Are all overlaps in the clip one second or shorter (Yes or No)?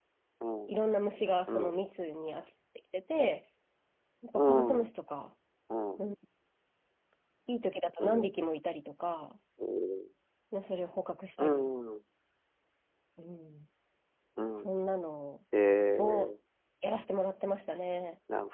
Yes